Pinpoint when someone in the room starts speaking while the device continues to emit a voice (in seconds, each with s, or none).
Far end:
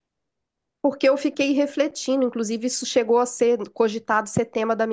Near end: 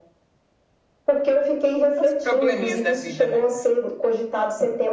2.0 s